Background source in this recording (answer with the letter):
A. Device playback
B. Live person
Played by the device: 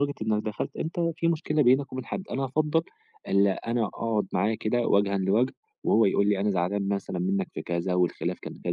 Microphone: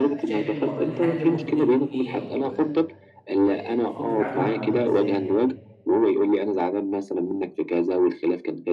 B